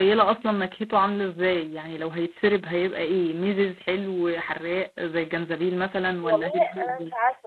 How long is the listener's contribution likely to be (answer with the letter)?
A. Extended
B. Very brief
A